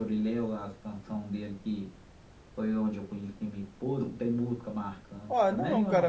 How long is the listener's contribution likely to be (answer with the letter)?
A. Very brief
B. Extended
B